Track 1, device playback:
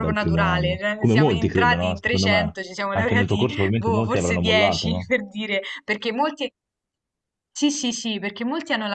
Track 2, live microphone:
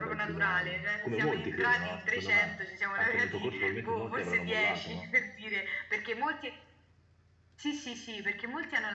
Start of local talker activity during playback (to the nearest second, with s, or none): none